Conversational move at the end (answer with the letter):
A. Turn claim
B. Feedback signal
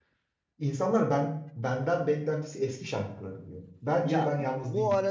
A